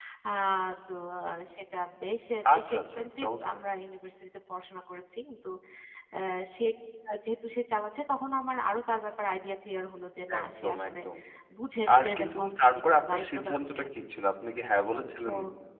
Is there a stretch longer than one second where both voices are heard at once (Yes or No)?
Yes